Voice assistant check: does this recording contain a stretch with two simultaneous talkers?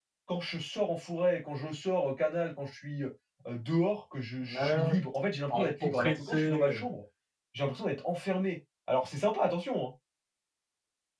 Yes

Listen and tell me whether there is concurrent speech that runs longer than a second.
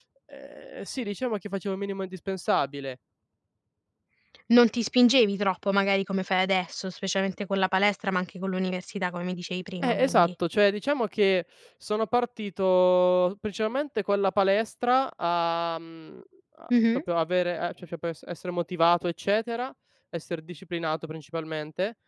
No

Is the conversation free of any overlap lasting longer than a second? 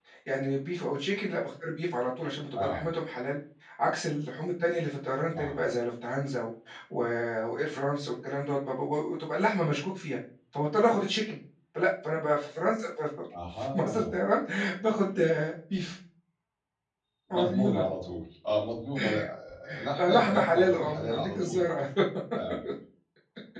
No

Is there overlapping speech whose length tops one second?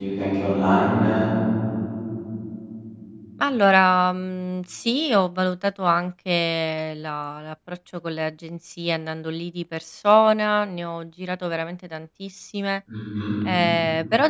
No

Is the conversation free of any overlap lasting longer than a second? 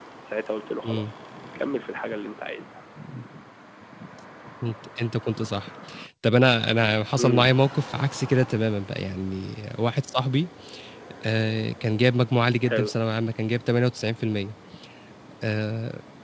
Yes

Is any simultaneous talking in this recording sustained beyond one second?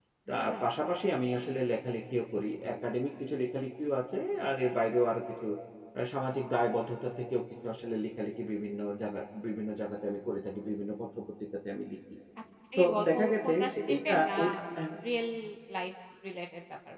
Yes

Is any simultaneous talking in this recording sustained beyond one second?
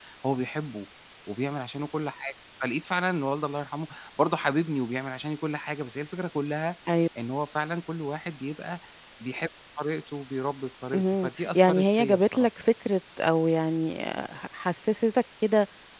Yes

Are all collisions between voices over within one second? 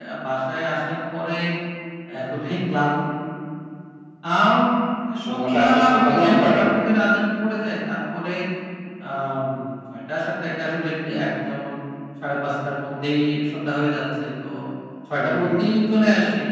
No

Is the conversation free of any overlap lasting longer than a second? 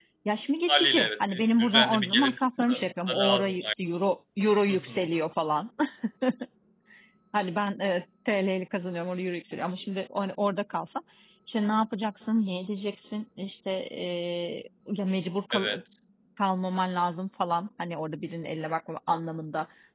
No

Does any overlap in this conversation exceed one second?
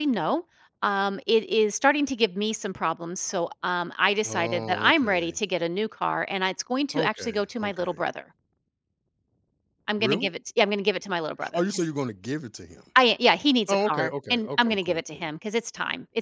Yes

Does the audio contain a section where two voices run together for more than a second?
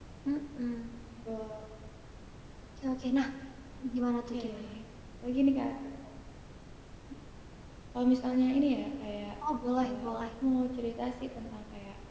No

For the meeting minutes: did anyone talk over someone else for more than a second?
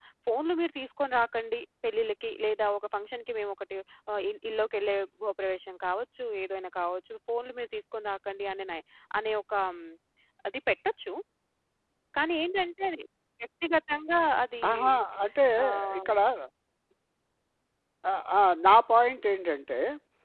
No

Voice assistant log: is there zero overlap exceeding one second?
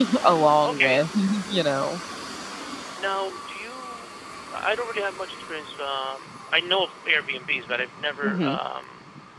Yes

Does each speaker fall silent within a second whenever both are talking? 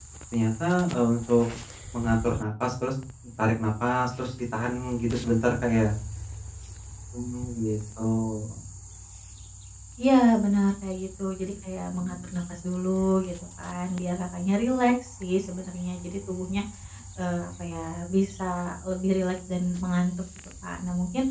Yes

